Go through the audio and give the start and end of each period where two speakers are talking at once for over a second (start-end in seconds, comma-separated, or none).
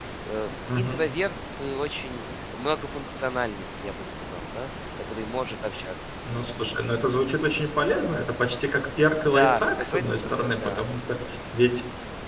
9.2-10.8